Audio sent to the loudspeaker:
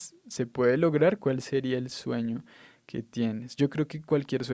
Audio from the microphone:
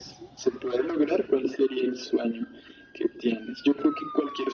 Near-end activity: none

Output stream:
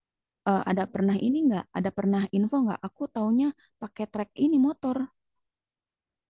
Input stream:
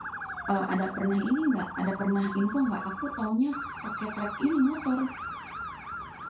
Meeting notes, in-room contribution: none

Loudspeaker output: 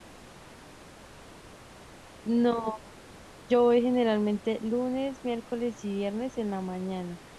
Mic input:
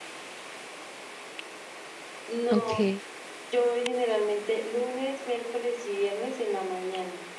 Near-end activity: present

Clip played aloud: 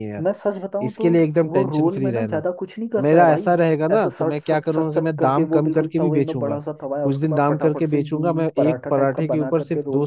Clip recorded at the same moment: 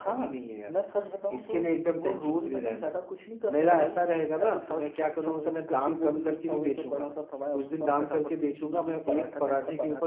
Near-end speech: none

